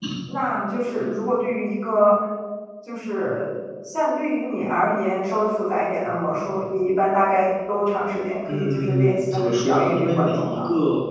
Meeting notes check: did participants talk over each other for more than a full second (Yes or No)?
Yes